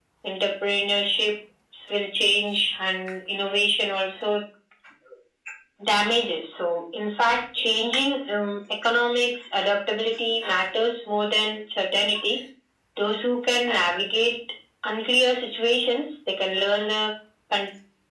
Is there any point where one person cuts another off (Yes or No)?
No